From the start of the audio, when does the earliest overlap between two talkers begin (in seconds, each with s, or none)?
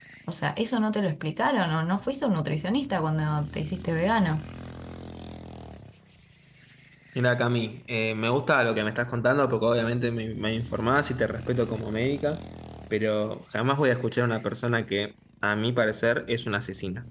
none